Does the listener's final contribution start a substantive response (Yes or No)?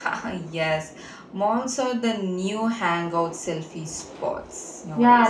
Yes